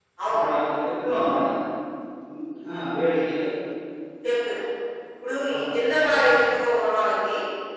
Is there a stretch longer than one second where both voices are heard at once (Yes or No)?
No